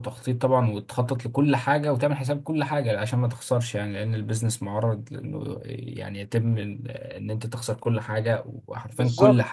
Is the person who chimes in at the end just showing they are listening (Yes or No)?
No